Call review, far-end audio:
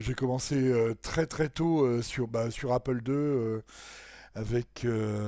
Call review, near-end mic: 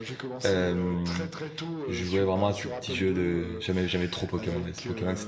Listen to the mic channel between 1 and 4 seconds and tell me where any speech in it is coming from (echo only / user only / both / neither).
both